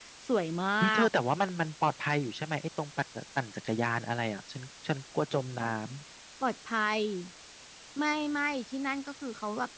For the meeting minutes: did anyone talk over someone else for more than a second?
No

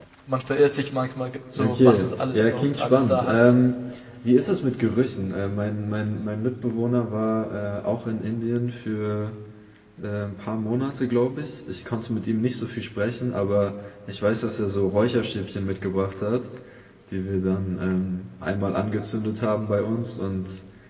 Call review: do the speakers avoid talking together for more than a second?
No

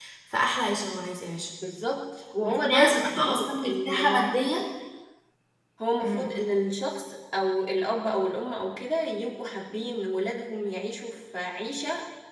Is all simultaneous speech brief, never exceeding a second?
No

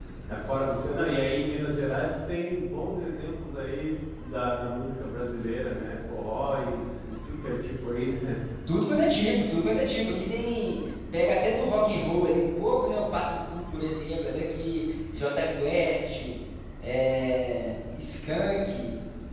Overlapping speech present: No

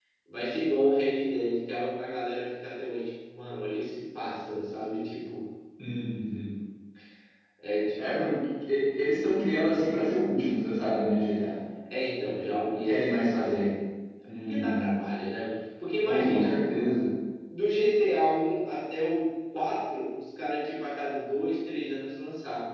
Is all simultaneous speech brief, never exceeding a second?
No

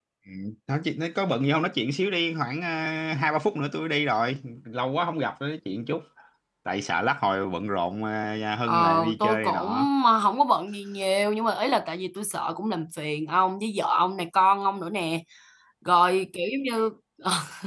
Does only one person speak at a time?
No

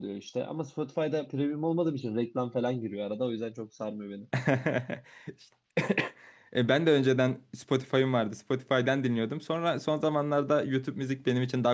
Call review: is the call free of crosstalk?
Yes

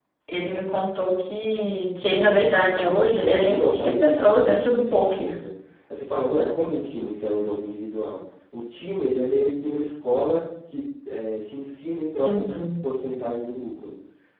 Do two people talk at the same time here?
Yes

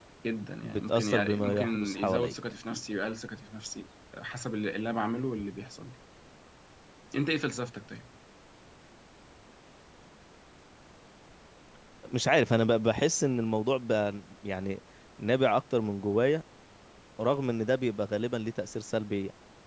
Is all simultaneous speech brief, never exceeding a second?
No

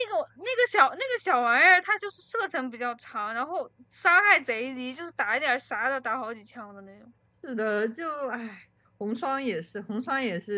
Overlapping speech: No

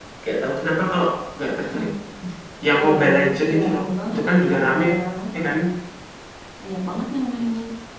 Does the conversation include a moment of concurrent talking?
Yes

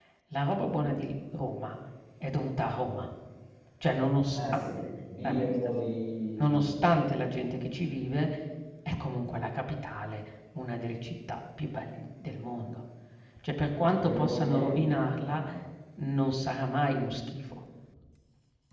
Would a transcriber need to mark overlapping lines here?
Yes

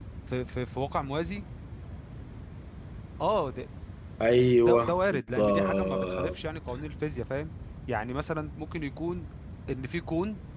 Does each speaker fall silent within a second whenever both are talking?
No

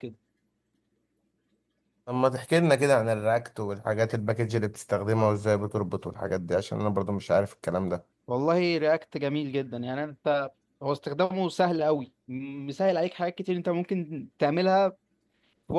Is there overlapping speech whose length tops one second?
No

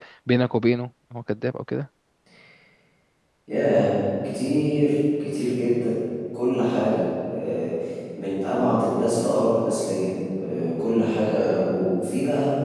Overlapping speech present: No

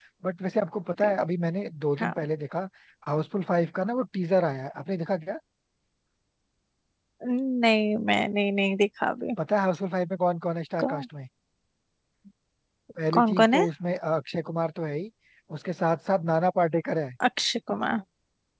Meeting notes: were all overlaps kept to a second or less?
Yes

